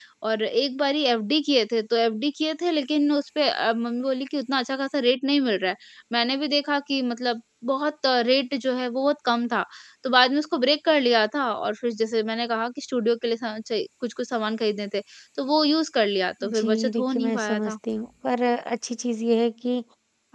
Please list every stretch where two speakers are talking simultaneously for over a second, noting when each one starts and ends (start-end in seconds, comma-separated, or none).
16.4-17.7